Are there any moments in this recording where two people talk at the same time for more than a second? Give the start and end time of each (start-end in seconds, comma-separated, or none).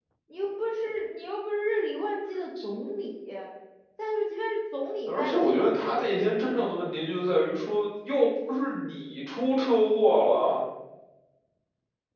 5.1-6.7